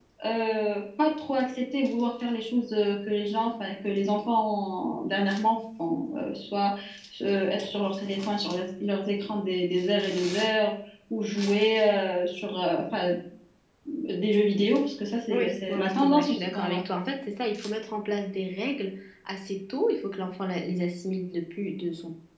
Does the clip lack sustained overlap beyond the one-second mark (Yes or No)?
No